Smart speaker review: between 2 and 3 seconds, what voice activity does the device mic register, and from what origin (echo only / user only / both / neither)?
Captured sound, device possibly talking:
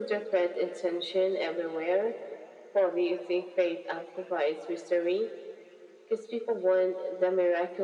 echo only